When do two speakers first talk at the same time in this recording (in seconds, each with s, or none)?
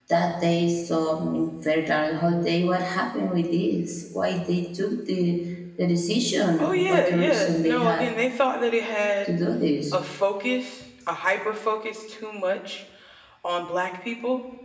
6.6 s